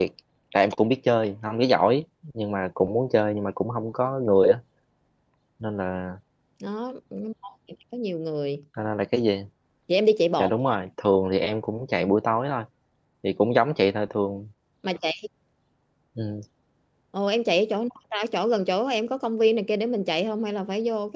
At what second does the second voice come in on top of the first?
none

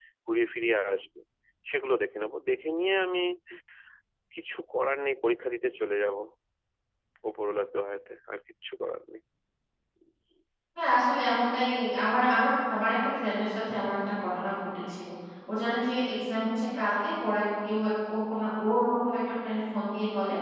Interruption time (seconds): none

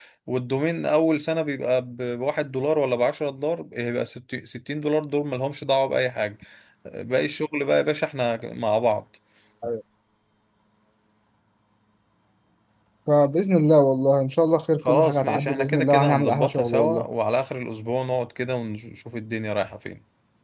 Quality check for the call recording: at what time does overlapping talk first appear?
15 s

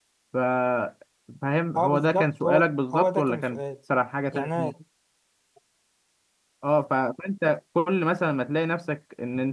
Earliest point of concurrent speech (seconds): 2 s

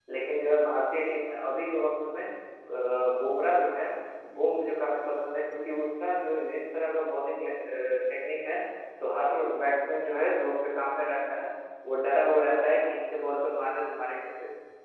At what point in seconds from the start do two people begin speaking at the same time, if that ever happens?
none

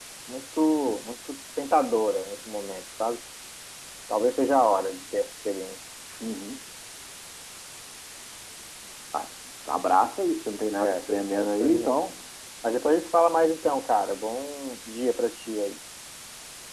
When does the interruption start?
11 s

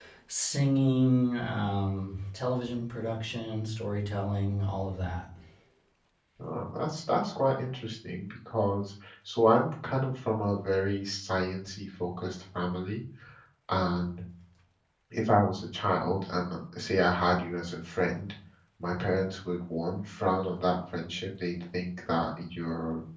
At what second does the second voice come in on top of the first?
none

